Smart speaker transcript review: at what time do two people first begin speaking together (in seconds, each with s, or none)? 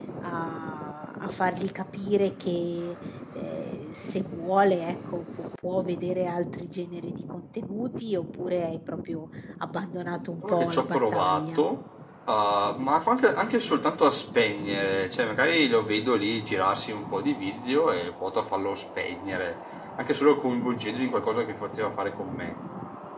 10.4 s